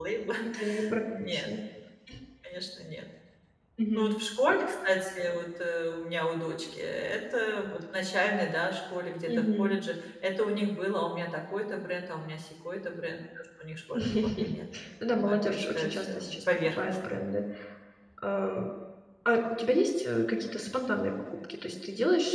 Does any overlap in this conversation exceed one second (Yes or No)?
Yes